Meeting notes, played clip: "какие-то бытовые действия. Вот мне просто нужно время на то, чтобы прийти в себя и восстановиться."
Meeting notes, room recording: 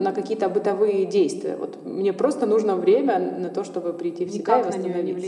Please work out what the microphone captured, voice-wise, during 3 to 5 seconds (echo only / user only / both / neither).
both